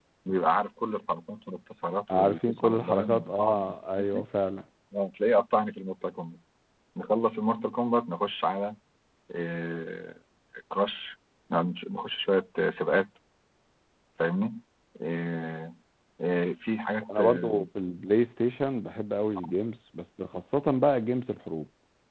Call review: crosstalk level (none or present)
present